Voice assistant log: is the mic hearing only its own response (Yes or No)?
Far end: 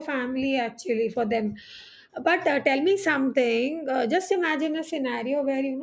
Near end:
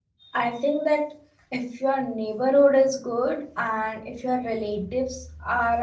No